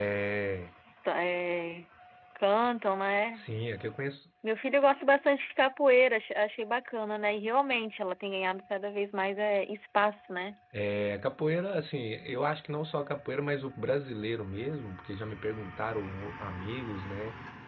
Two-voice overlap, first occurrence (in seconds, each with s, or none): none